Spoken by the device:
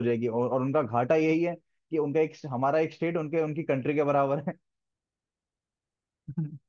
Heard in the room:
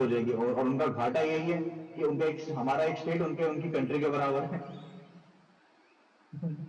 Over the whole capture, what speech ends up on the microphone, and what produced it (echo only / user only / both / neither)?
echo only